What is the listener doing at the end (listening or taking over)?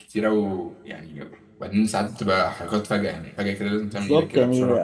taking over